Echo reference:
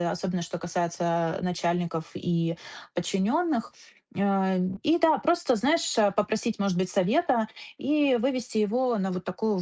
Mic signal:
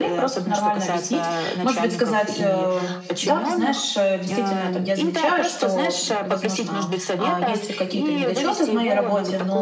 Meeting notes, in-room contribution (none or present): present